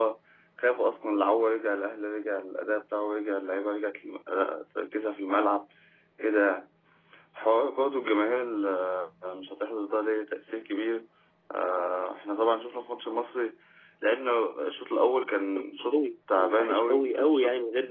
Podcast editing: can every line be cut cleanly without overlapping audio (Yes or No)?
No